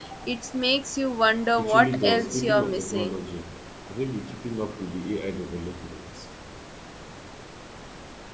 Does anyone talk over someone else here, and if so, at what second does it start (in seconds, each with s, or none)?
1.6 s